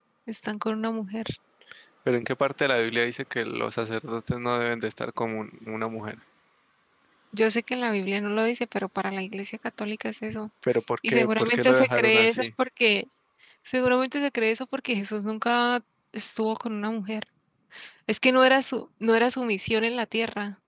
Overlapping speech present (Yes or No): Yes